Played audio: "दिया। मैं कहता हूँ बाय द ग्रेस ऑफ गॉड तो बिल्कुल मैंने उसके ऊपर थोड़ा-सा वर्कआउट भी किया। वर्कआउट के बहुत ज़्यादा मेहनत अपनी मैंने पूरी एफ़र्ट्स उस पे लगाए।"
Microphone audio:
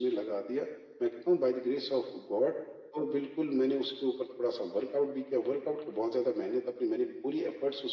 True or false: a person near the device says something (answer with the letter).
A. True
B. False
B